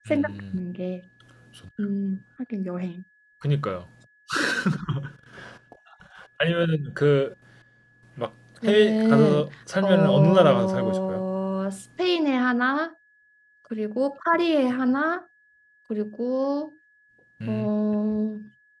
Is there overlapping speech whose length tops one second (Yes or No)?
Yes